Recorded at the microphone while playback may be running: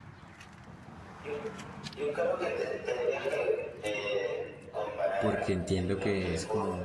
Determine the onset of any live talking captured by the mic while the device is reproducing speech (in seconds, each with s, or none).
5.2 s